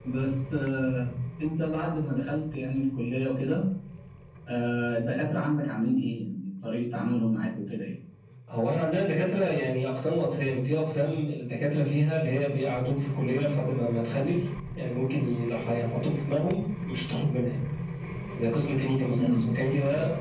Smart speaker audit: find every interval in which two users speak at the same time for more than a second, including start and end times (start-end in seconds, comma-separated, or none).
none